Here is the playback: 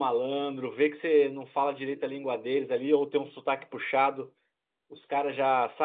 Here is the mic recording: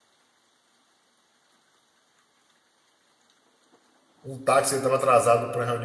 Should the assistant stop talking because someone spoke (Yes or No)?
Yes